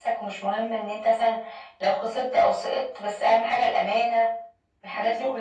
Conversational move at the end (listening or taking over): taking over